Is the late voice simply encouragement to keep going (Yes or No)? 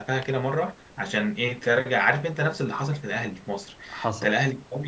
Yes